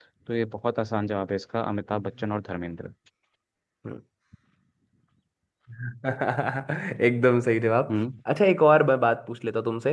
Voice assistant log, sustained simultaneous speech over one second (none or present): none